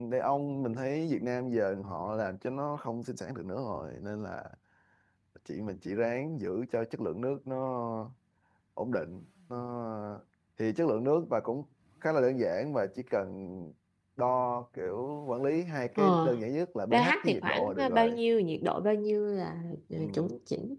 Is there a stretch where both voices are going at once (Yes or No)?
Yes